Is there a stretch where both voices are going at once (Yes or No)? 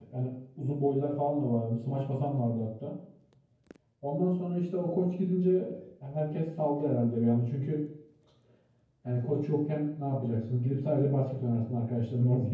No